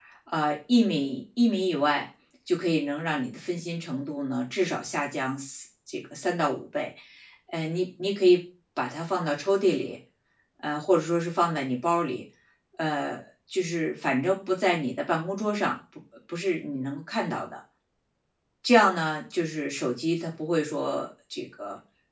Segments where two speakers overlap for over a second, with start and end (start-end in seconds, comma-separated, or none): none